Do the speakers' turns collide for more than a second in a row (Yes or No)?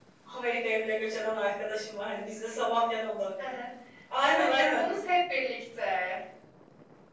No